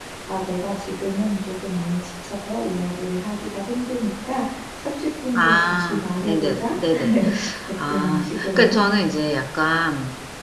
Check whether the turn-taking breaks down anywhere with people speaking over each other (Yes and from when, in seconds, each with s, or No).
Yes, from 5.4 s